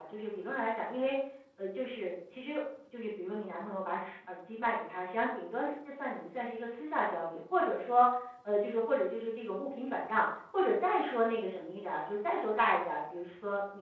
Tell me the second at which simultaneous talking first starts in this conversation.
none

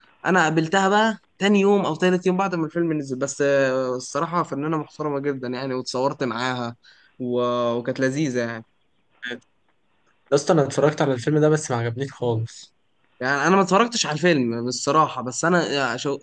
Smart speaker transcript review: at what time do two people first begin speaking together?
none

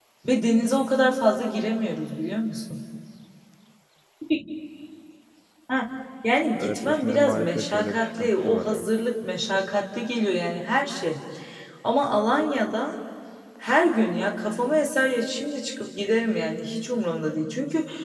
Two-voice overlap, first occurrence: 6.6 s

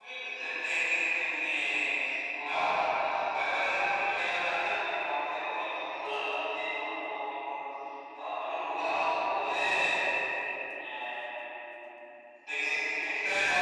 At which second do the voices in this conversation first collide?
none

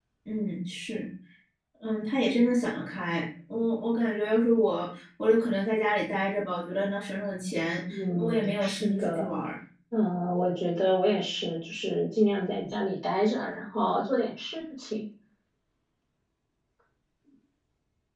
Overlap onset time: 7.9 s

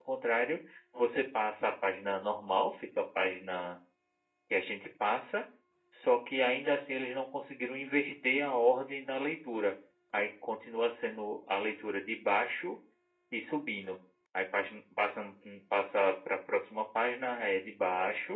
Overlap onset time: none

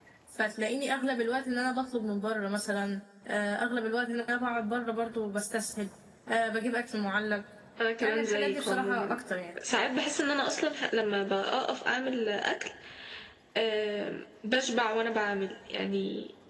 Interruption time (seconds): 8.0 s

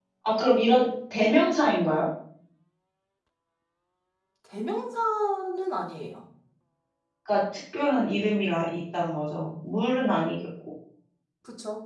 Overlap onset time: none

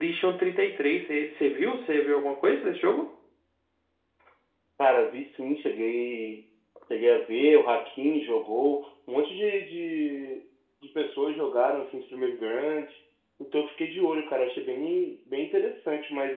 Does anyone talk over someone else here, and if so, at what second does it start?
none

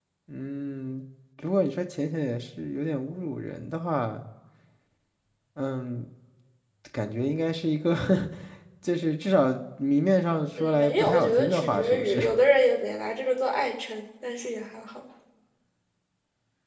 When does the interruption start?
10.6 s

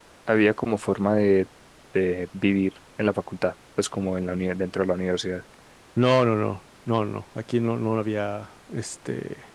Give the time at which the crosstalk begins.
none

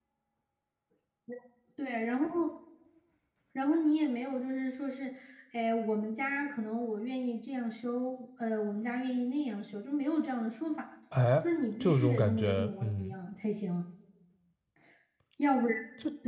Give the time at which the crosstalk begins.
11.8 s

